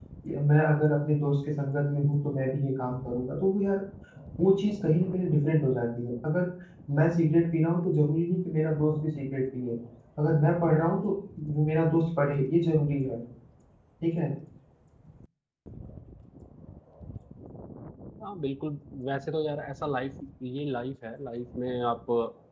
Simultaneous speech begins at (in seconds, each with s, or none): none